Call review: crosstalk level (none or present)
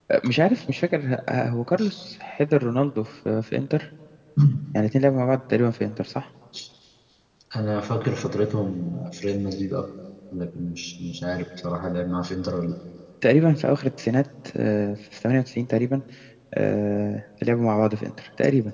none